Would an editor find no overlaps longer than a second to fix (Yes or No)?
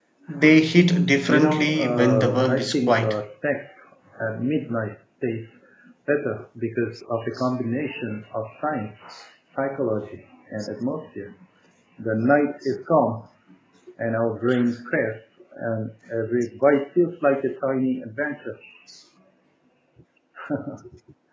No